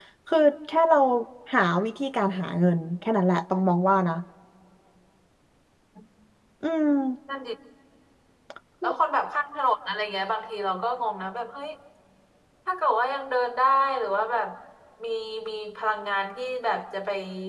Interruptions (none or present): none